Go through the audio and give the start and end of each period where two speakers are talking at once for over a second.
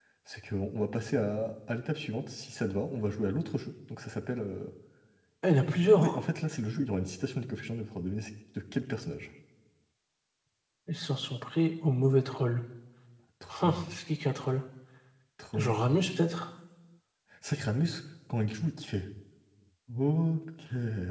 none

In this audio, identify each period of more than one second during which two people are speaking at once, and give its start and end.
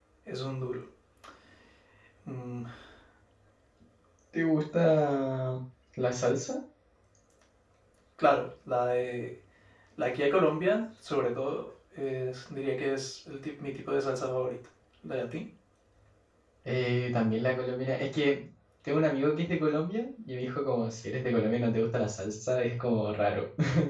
none

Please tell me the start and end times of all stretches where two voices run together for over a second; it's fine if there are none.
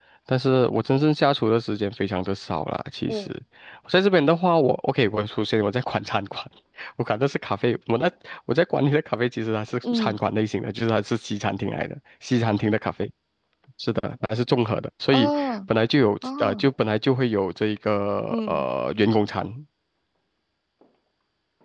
none

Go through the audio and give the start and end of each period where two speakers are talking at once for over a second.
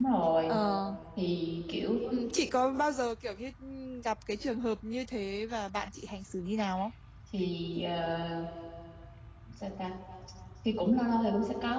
none

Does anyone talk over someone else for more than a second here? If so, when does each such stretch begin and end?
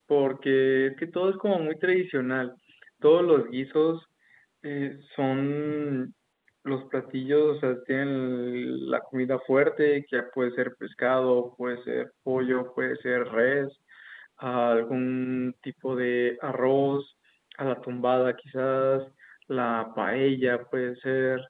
none

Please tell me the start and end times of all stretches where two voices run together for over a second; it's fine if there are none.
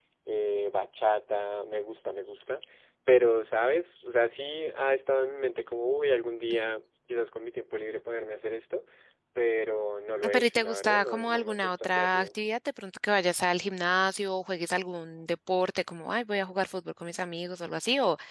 10.3-12.3

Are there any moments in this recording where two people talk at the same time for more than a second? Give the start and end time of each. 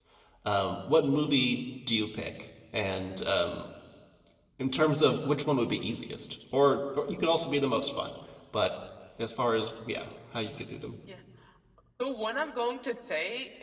none

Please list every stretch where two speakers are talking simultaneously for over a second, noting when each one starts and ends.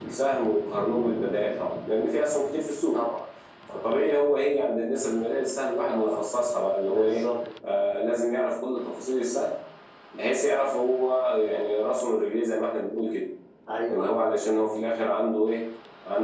none

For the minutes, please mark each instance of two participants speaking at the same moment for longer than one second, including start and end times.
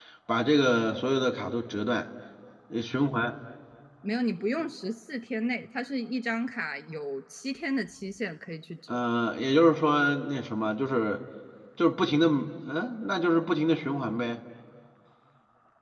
none

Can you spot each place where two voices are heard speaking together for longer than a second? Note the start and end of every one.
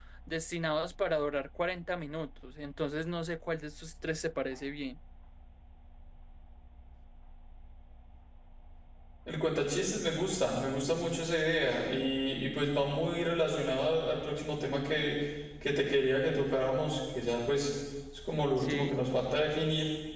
none

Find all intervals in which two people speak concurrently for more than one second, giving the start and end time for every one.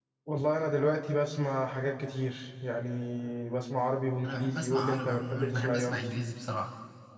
4.2-5.9

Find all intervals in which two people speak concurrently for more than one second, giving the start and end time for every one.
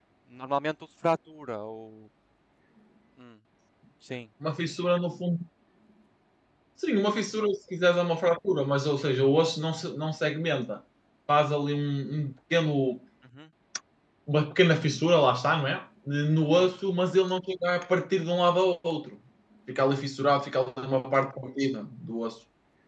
none

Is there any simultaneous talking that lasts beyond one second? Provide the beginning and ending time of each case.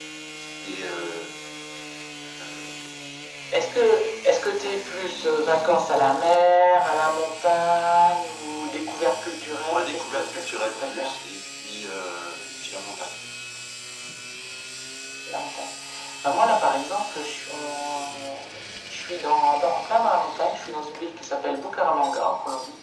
9.7-11.1

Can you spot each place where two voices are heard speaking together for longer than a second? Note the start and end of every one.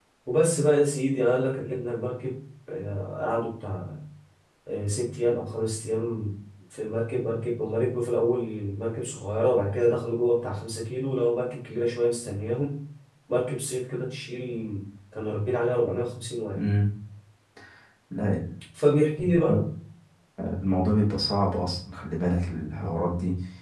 none

